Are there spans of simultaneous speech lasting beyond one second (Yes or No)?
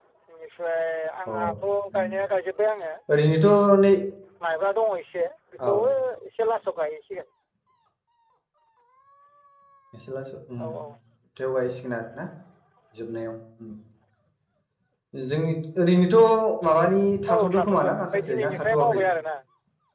Yes